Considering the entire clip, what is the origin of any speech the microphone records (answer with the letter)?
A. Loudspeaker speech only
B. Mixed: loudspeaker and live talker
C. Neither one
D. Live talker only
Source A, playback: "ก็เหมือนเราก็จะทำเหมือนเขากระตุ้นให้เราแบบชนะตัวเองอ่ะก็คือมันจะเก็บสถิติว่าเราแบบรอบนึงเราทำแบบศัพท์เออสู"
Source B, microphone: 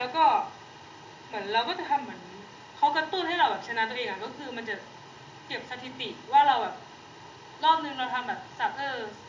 A